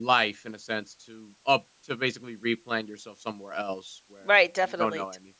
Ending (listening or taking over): taking over